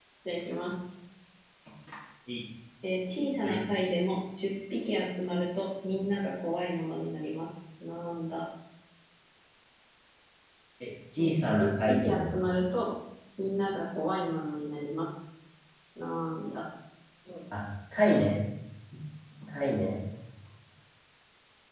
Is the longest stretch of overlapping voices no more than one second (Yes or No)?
No